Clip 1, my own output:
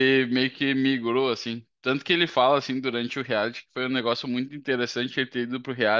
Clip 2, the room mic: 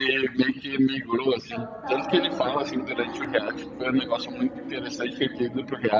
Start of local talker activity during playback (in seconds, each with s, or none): 1.4 s